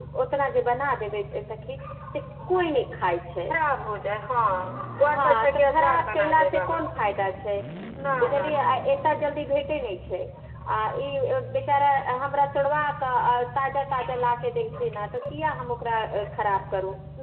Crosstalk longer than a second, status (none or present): present